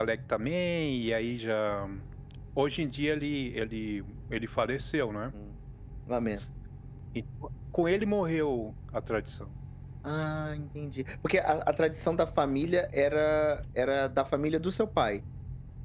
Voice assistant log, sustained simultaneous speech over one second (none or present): none